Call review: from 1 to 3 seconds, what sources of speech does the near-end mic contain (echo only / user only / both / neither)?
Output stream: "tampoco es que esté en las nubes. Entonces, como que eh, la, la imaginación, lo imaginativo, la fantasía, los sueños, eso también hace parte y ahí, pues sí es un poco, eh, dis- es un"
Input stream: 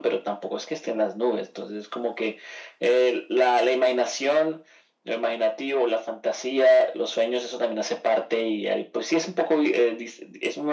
echo only